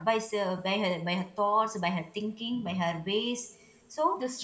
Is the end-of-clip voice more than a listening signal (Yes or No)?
No